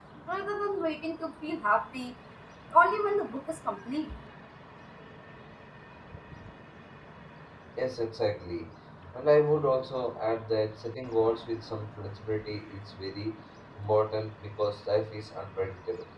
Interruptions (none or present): none